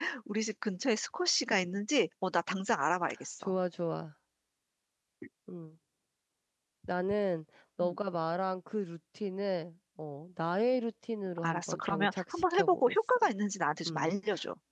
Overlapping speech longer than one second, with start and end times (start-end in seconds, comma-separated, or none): 11.4-13.2